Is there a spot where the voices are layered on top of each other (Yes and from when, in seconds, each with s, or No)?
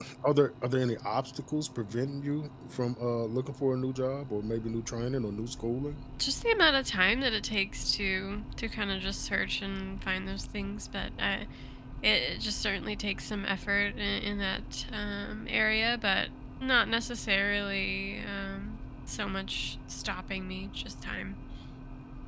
No